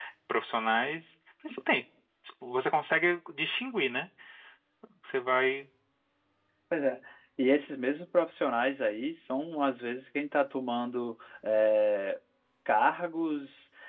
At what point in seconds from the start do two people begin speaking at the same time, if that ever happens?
none

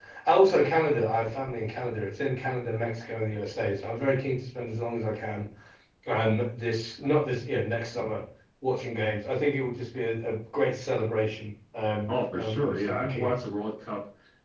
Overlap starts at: 12 s

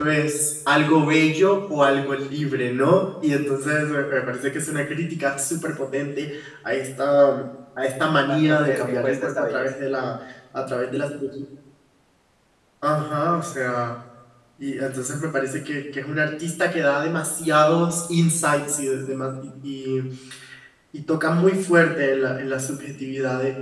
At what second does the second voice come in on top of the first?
8 s

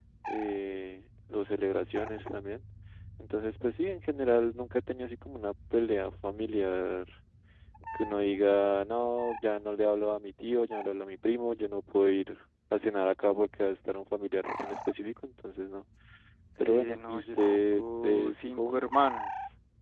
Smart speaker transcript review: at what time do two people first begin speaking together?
17 s

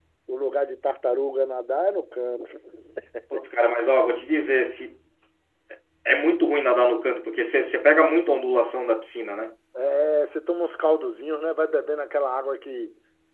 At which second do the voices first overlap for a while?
none

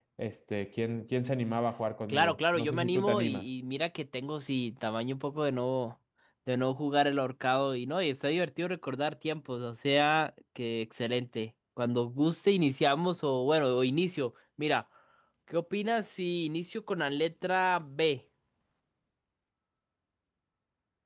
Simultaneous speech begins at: 2 s

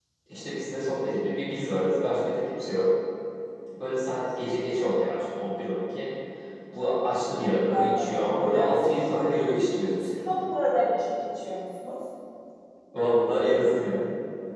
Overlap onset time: 8 s

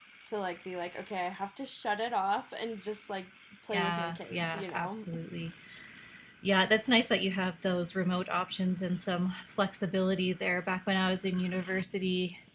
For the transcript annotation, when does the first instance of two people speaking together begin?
4 s

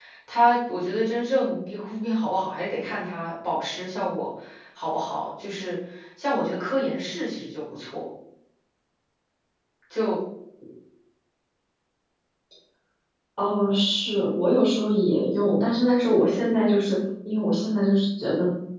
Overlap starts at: none

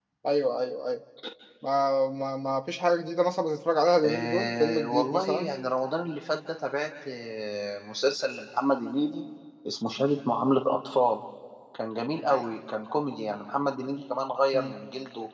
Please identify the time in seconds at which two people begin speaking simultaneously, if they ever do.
4 s

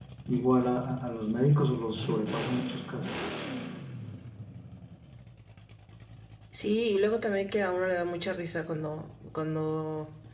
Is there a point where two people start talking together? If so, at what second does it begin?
none

